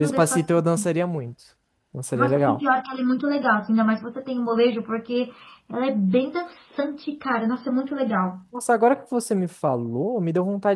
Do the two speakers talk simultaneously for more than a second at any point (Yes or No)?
No